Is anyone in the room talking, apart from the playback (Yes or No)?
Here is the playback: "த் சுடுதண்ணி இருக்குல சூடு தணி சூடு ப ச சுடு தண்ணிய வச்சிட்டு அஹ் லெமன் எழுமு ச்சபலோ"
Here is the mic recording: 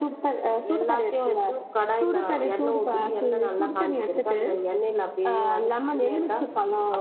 Yes